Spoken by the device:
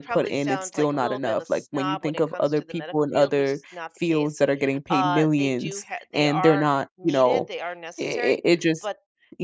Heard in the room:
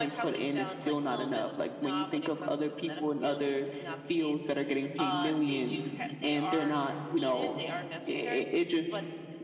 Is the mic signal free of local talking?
Yes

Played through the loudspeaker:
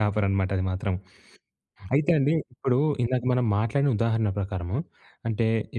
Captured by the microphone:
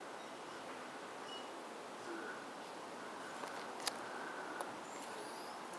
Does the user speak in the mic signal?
No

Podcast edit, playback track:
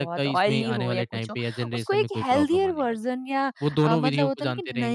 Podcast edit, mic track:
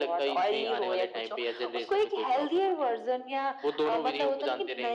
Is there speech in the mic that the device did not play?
No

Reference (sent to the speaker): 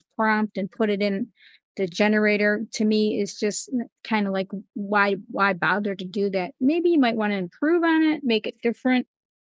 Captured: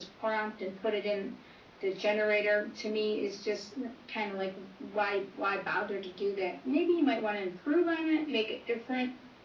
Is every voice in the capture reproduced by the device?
Yes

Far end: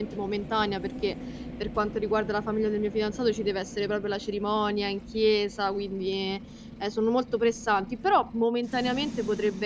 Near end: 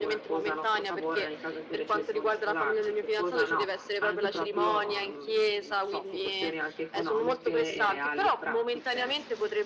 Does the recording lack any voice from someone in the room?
No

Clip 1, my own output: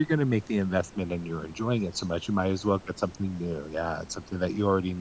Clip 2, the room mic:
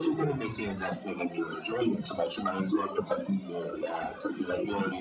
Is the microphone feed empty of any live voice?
Yes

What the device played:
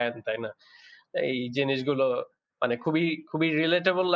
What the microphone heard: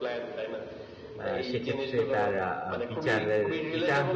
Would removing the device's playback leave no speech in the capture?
No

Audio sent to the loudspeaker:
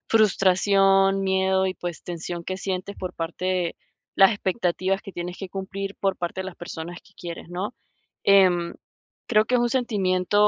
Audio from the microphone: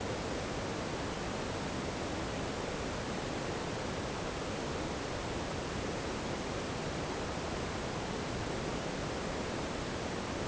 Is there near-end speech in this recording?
No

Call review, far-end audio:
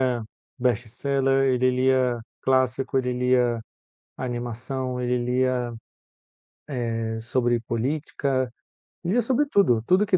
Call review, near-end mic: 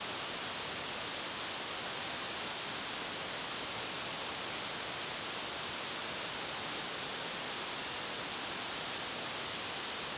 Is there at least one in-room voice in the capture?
No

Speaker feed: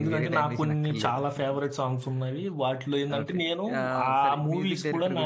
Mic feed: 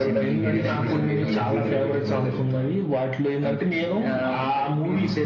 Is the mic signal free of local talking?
No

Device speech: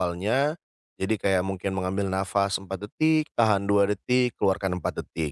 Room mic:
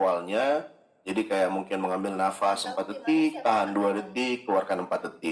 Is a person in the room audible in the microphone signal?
Yes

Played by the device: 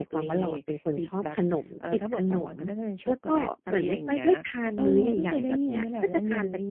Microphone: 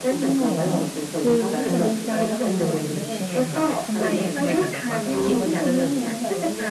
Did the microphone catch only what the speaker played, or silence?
No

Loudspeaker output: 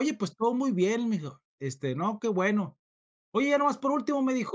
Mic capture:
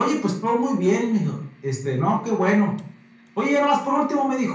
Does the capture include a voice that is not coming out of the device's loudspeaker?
No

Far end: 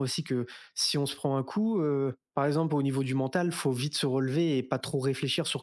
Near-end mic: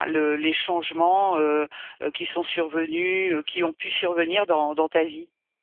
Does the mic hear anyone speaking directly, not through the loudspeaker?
Yes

